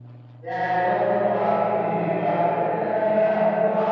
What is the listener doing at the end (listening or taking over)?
listening